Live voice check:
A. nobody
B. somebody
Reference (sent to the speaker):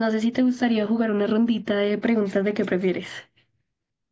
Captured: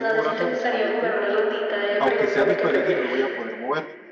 B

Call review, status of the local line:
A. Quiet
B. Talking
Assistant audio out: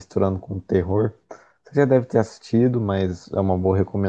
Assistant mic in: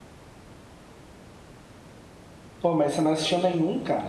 B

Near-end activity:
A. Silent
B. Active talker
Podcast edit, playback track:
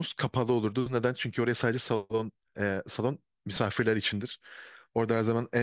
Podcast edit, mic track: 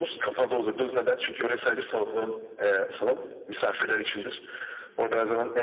A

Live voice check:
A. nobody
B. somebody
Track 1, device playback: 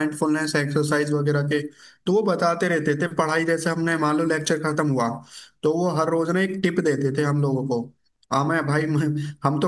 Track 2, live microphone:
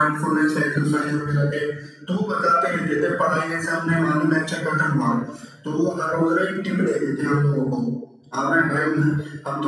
A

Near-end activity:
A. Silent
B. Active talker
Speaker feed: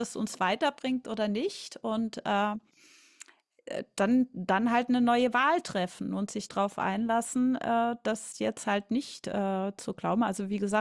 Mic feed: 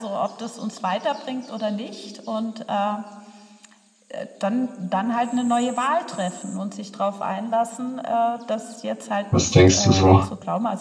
B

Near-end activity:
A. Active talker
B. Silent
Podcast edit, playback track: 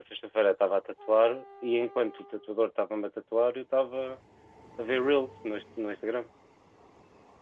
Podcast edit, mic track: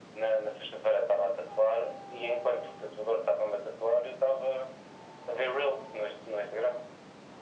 B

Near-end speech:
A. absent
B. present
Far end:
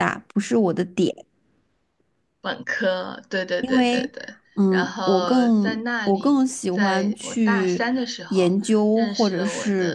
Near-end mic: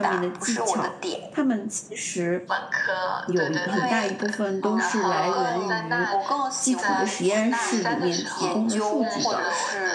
B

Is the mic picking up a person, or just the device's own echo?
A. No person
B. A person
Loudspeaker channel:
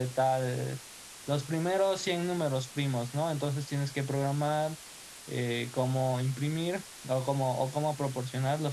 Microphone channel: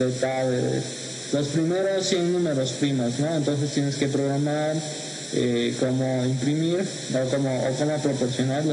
A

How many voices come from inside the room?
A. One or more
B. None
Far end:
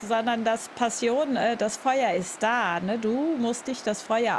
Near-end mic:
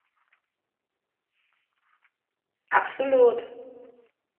A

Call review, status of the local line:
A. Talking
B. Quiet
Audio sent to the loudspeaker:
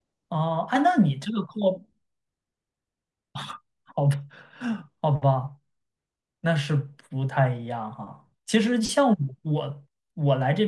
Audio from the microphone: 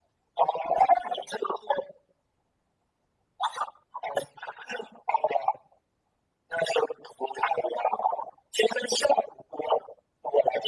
B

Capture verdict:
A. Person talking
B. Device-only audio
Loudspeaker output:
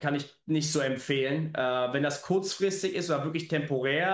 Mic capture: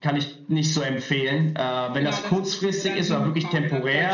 A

